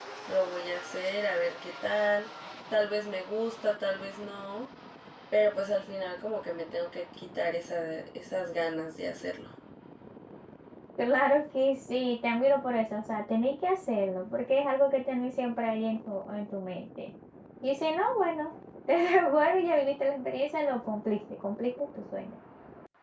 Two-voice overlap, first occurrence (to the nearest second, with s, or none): none